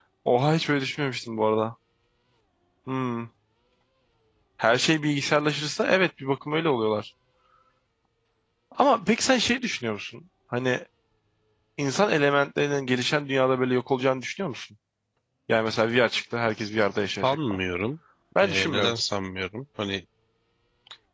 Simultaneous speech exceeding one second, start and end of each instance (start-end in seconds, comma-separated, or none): none